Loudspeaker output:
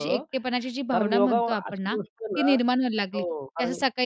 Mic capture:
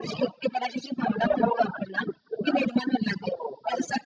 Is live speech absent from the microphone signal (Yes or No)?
Yes